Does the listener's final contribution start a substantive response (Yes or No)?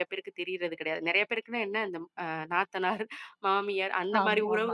No